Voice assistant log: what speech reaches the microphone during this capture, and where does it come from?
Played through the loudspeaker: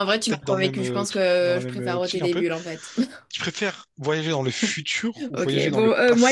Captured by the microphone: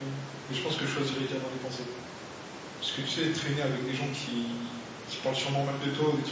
user only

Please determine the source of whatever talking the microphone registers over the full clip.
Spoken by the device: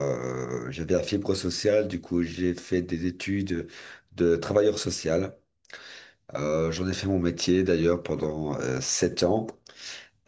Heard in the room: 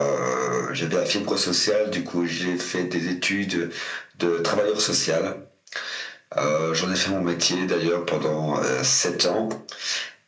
echo only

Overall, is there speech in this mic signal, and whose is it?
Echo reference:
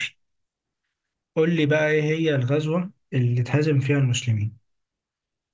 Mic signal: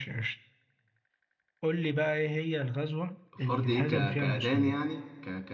both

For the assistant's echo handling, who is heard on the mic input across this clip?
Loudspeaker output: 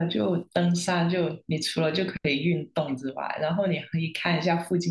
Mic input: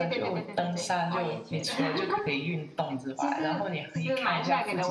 both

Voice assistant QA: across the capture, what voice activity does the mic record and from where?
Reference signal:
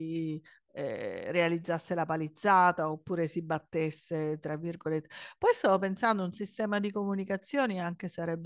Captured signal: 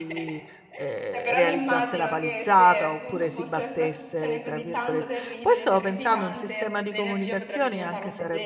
both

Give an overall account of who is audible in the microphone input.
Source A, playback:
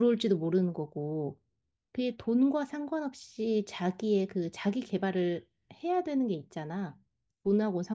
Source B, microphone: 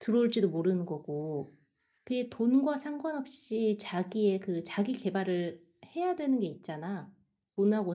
echo only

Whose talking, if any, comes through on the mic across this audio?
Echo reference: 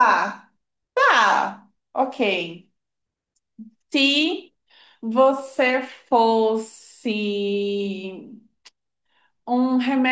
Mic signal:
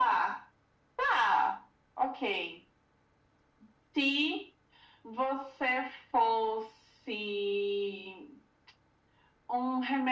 echo only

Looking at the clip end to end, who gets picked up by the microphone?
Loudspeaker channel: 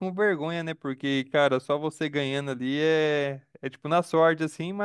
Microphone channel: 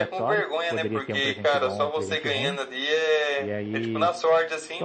both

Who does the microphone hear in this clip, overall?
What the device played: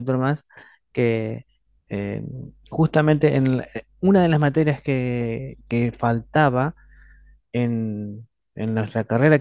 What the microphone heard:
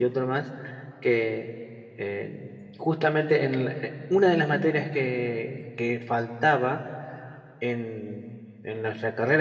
echo only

